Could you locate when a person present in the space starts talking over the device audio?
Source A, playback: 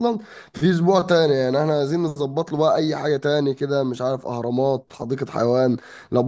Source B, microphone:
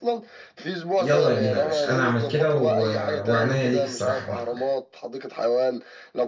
1.0 s

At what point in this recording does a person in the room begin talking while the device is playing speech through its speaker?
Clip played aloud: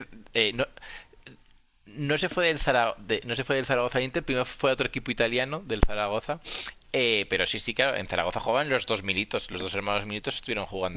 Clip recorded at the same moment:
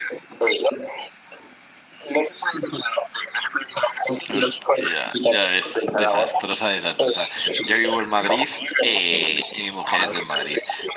4.3 s

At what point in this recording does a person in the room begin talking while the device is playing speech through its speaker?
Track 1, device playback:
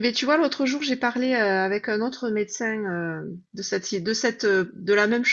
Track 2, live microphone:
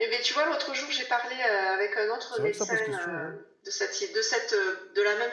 2.3 s

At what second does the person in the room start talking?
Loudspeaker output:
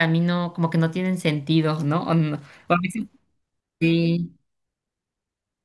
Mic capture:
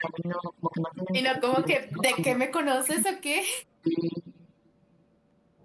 1.2 s

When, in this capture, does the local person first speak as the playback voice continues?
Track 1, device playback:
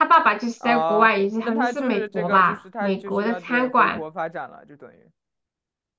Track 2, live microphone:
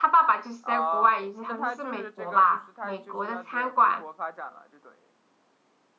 none

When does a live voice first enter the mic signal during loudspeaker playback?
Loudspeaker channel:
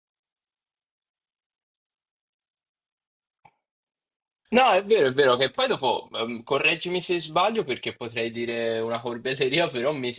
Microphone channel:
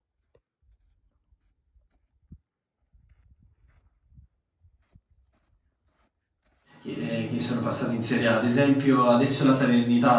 6.8 s

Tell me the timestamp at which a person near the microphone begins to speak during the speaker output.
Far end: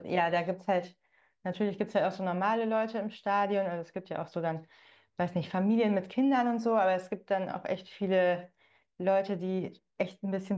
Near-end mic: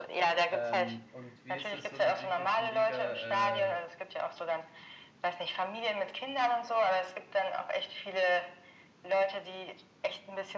0.5 s

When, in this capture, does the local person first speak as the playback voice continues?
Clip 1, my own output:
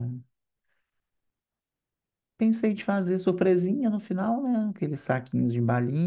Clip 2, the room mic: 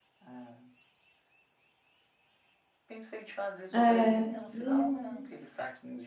3.7 s

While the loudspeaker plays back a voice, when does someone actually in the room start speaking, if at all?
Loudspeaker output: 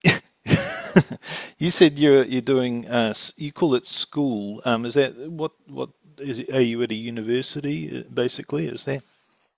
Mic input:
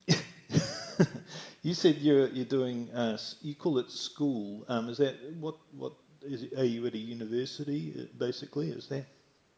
none

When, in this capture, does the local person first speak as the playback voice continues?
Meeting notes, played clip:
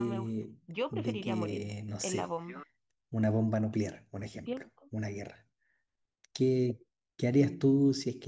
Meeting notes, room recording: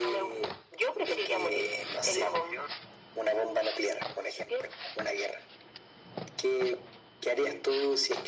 none

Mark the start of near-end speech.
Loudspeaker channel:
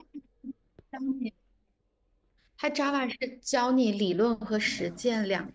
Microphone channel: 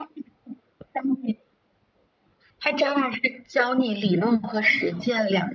none

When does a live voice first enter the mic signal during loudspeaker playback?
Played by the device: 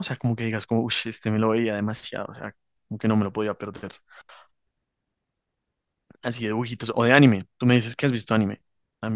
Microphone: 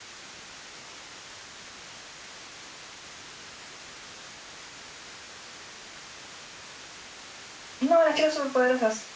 7.8 s

